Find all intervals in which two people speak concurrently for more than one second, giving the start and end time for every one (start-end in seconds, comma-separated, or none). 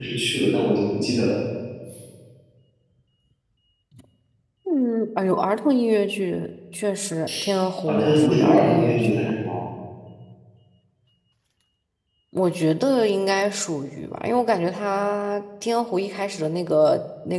7.9-9.3